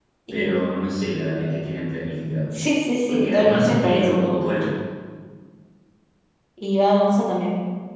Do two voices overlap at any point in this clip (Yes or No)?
Yes